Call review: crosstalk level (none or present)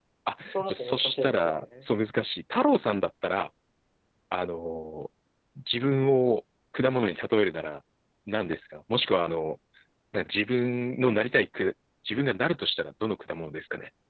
present